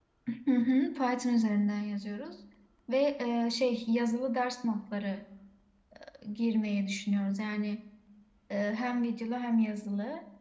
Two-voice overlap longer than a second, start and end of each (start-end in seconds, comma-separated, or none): none